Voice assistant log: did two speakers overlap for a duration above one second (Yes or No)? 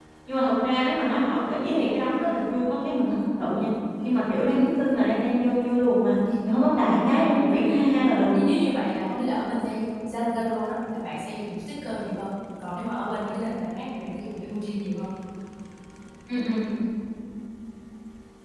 Yes